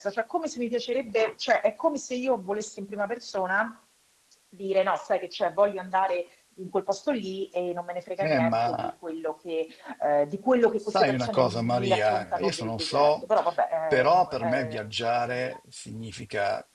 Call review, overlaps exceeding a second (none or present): present